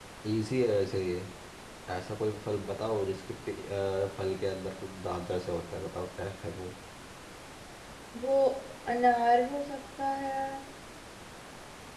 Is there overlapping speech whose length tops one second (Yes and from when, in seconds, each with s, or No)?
No